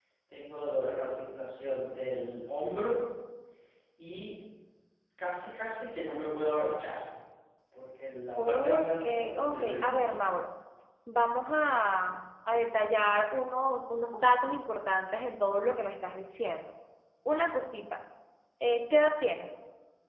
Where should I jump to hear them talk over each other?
8 s

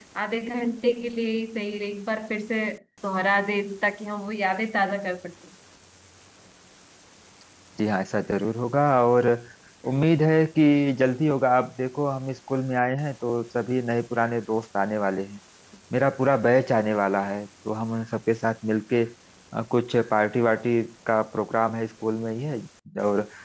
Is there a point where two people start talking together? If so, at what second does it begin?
none

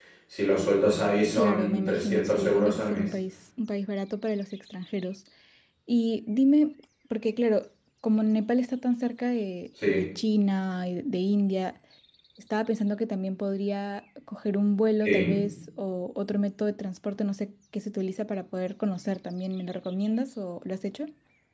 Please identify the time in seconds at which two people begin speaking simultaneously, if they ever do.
1 s

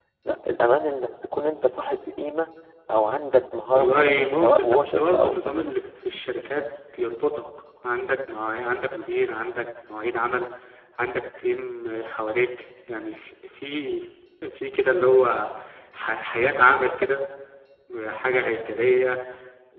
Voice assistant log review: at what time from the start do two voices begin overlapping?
4 s

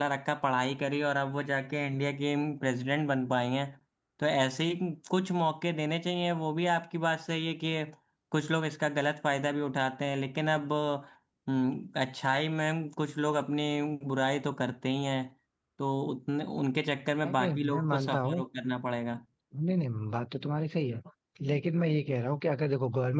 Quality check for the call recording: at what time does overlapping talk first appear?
17 s

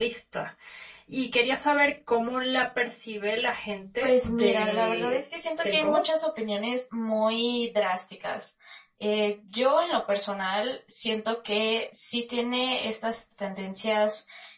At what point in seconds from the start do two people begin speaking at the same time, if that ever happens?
4 s

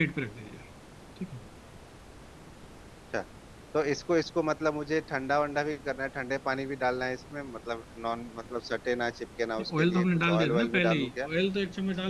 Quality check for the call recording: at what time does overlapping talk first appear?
10 s

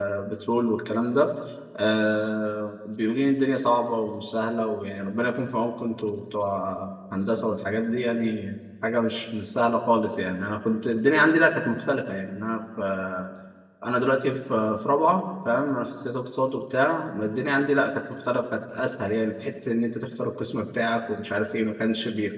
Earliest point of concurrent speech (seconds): none

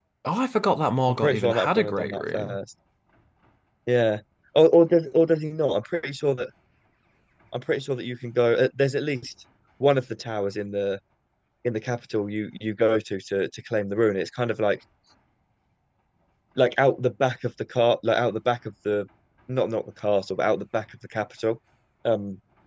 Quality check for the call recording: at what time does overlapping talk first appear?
1 s

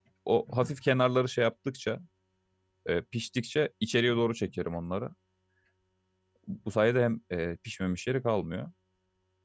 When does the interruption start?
none

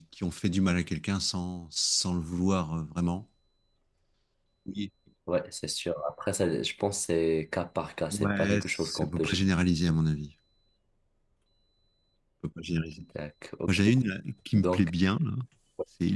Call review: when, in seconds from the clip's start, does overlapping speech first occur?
8 s

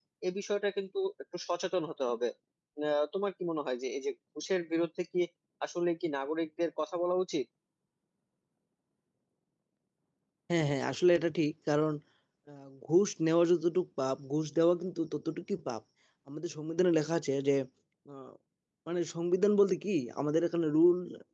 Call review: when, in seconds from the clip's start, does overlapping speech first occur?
none

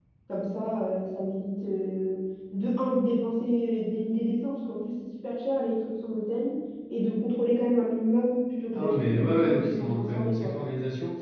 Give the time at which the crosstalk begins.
9 s

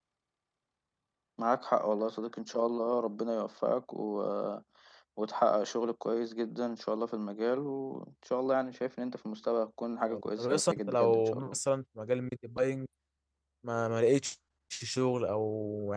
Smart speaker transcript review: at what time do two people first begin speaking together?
10 s

